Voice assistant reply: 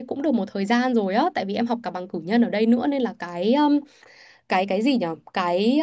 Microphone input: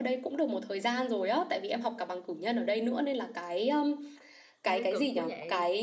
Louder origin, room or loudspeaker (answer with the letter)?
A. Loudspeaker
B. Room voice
A